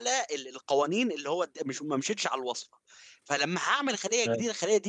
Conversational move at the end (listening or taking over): listening